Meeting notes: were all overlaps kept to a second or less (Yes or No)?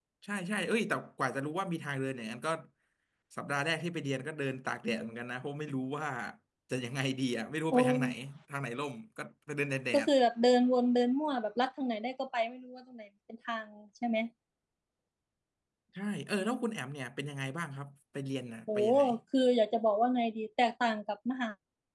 Yes